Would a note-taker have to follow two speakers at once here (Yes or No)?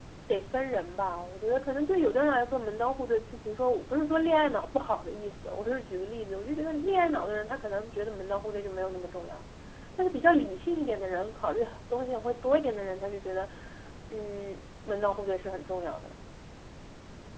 No